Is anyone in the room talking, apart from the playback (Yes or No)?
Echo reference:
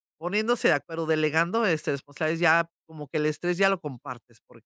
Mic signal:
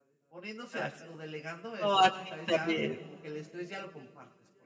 Yes